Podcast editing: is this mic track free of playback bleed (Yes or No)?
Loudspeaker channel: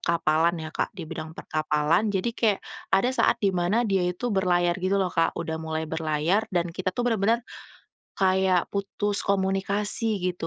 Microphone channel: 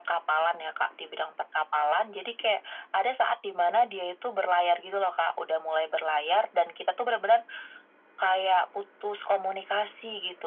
No